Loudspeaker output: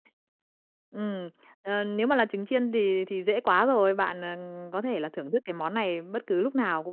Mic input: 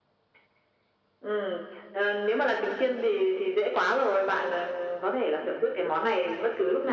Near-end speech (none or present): none